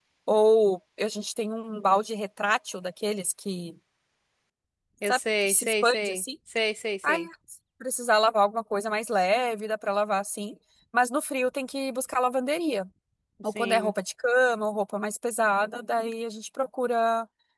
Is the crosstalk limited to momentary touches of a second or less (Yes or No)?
No